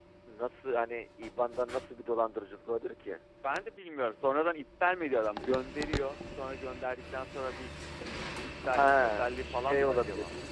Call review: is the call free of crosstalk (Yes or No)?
No